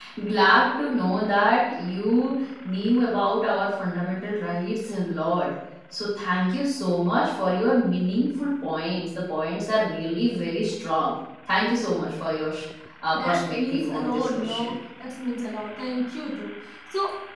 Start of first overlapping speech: 13.1 s

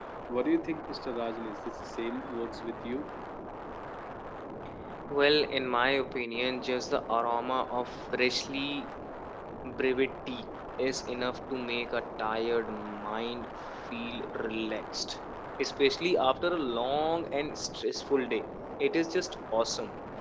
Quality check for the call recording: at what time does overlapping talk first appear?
none

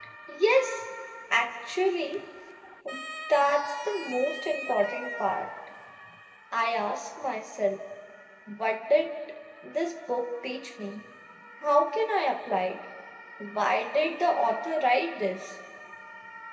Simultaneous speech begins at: none

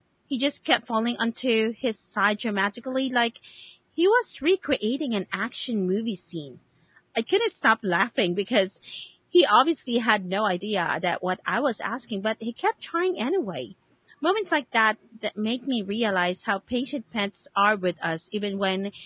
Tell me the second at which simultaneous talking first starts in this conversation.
none

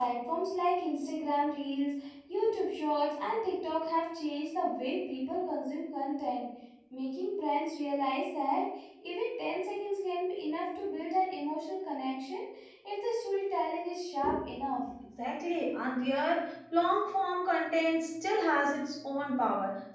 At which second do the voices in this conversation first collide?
none

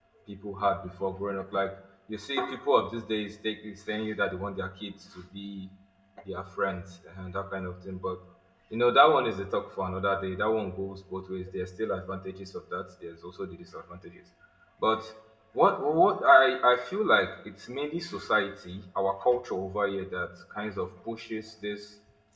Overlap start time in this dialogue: none

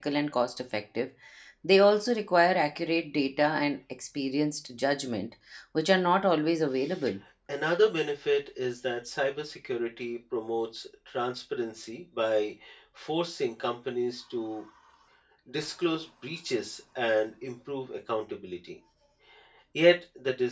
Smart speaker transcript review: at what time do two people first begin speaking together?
none

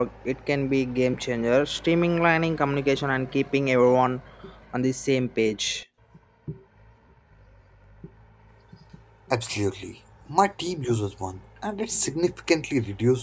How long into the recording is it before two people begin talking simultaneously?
none

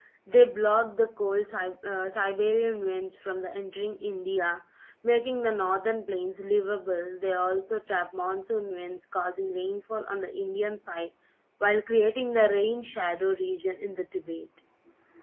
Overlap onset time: none

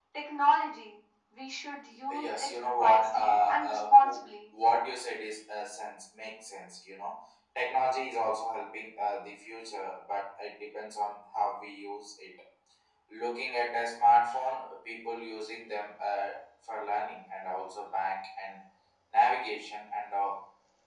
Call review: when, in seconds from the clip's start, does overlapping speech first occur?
2.1 s

